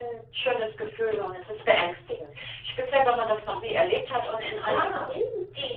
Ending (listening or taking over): listening